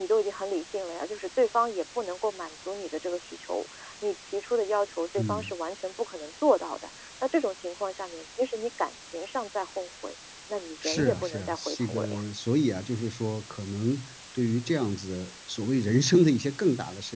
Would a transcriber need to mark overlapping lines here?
Yes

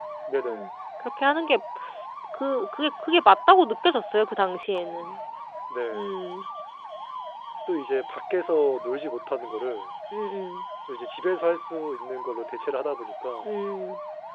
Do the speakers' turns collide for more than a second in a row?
No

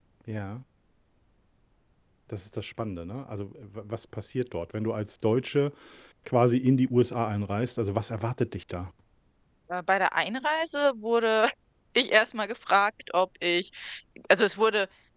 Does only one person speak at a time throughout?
Yes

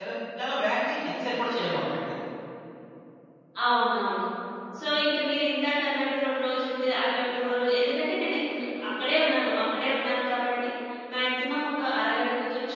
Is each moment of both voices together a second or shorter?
Yes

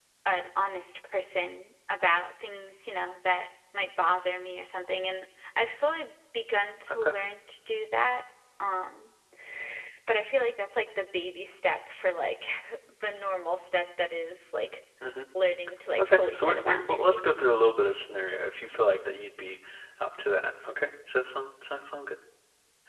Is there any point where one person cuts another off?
Yes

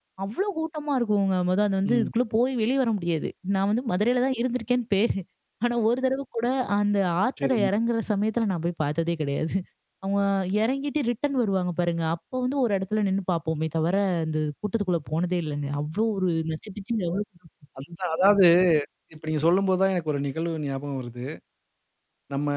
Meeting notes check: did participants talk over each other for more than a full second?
No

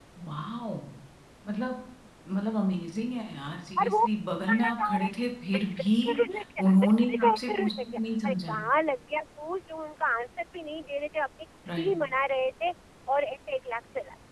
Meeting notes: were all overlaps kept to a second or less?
No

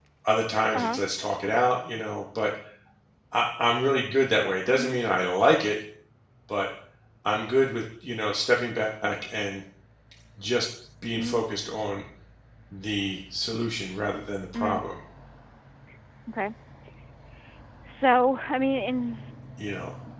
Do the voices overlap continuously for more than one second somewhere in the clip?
No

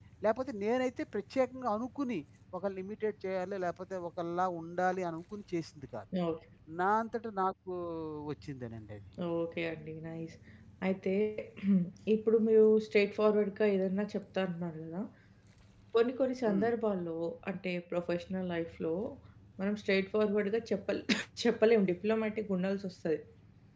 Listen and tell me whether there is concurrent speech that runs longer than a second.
No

